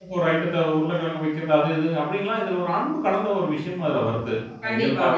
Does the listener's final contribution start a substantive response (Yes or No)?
Yes